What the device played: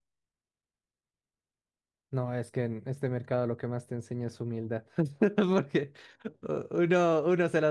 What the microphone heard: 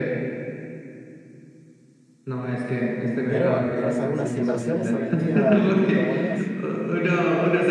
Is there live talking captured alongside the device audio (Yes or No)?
Yes